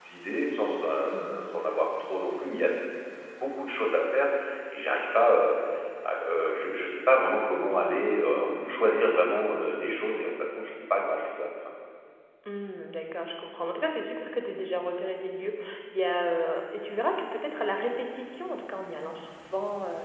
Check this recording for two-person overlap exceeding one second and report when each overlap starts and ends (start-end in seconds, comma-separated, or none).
none